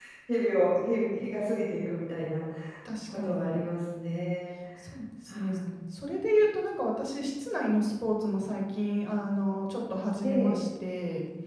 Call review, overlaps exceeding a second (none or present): none